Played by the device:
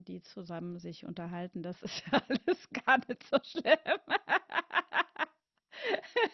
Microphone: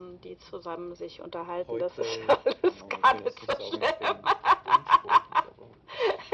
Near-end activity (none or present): present